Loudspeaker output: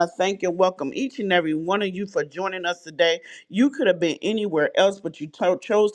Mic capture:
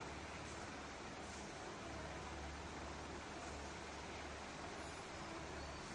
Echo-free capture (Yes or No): Yes